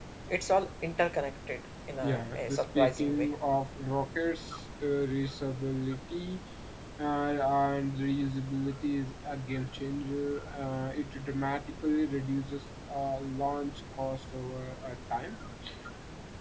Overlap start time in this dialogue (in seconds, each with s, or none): 2.0 s